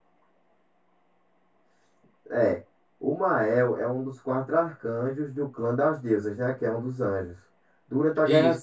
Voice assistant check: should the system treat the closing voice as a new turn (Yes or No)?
No